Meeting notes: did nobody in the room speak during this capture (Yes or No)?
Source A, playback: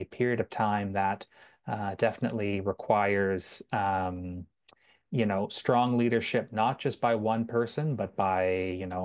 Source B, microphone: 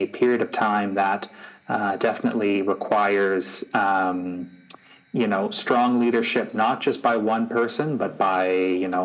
Yes